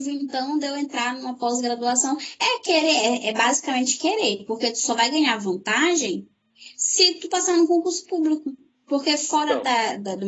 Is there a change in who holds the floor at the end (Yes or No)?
No